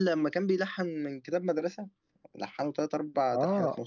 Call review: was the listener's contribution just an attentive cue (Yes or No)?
No